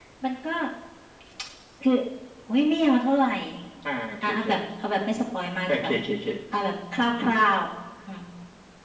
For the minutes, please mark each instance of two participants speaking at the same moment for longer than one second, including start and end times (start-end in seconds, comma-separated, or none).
none